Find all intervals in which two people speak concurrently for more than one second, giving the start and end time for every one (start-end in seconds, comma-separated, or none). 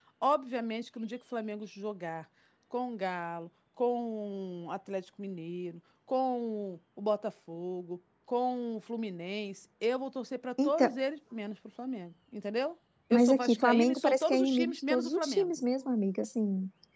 13.1-15.5